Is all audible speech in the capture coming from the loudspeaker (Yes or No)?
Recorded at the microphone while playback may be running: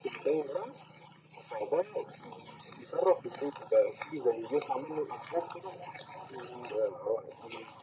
Yes